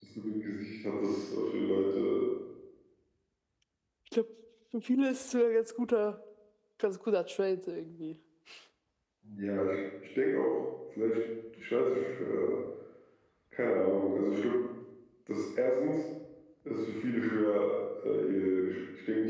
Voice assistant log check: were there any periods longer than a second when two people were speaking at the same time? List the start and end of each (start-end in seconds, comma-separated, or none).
none